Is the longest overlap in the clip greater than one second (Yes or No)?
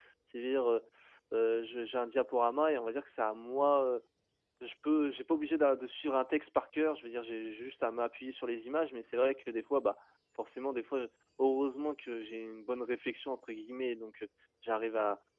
No